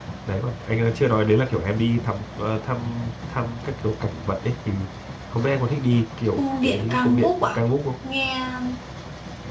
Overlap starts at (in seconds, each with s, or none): 6.3 s